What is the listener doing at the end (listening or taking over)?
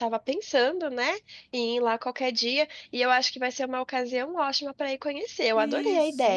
taking over